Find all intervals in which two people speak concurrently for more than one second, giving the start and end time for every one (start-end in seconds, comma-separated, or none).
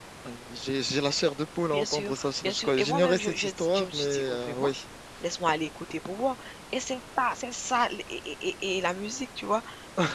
1.7-4.7